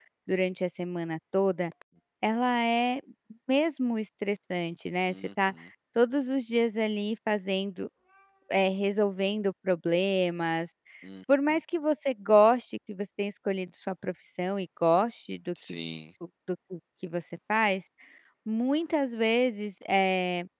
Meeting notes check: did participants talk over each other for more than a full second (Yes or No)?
No